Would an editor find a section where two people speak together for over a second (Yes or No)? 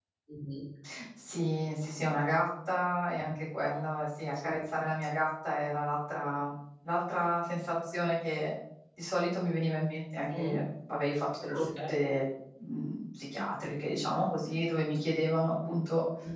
No